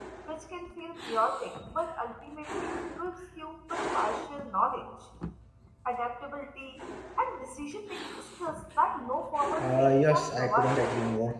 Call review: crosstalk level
present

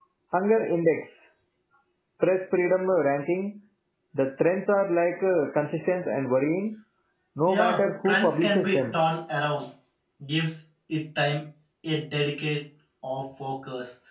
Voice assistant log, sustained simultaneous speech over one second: present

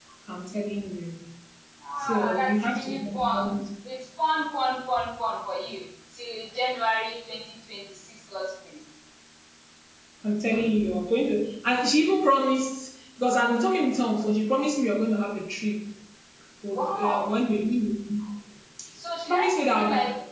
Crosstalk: present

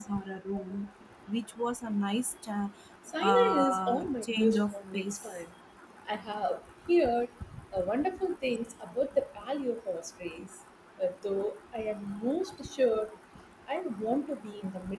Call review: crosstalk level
present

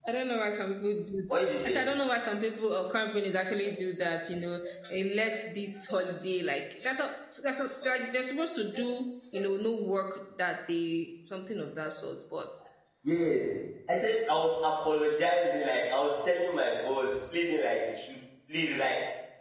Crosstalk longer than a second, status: none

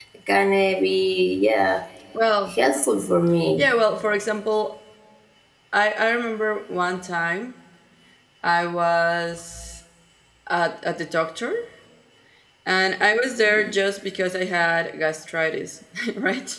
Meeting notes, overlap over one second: none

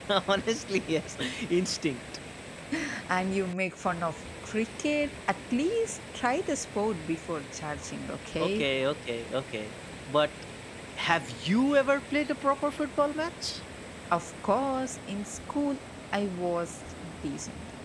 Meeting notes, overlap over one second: none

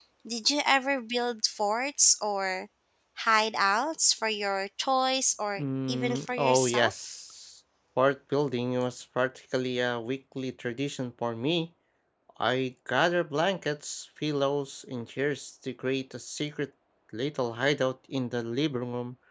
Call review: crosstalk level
present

